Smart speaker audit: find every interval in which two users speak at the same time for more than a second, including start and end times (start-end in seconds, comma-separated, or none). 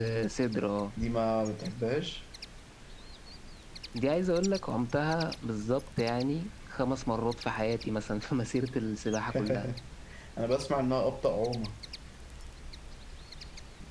none